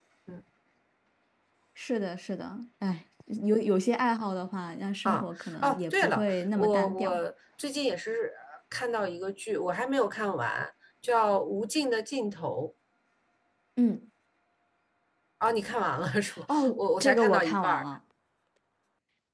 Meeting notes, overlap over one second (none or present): present